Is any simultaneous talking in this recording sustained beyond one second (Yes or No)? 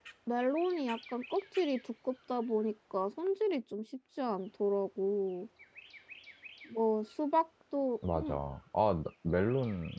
No